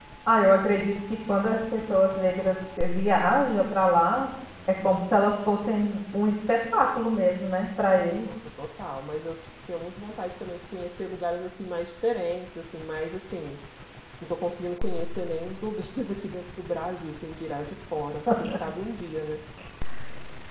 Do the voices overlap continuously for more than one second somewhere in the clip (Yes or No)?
No